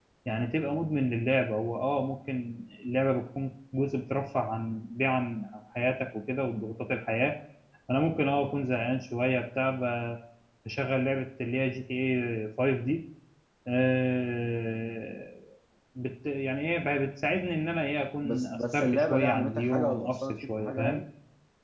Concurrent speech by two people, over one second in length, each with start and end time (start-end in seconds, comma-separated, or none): 18.2-21.0